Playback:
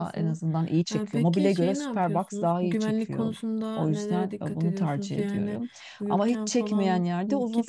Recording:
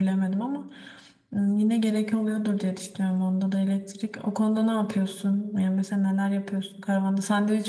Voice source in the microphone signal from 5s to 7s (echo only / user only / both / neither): user only